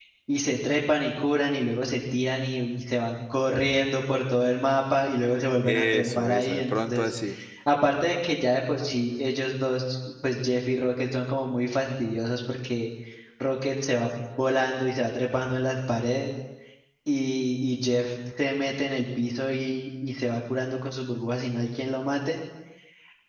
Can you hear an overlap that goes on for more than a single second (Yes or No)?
Yes